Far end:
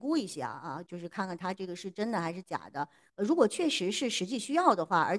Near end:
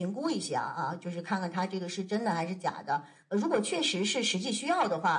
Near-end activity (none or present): none